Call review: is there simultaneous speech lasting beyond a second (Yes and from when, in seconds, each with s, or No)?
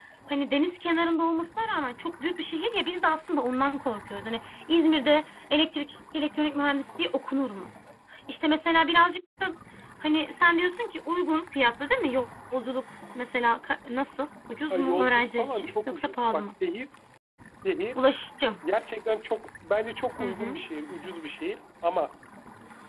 Yes, from 14.7 s